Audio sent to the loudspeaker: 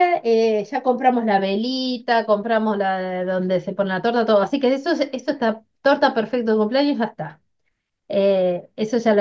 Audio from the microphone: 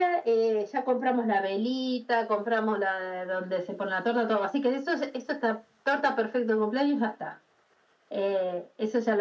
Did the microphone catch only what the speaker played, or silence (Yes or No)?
Yes